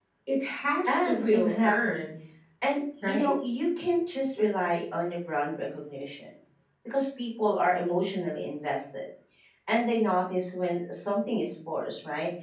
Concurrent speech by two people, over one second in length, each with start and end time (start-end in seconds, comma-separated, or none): 0.8-2.1